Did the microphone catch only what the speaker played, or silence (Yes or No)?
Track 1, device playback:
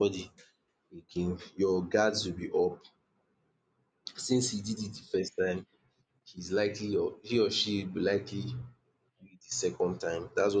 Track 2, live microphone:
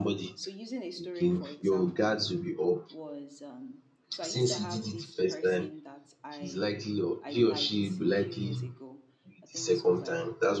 No